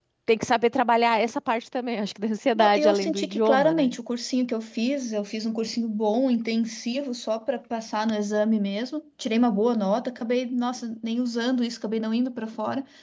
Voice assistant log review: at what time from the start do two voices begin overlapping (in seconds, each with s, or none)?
2.5 s